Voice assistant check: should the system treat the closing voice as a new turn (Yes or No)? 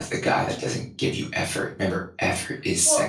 Yes